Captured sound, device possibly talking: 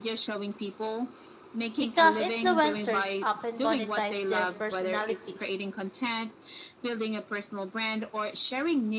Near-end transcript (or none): because influencers often monetize their personalities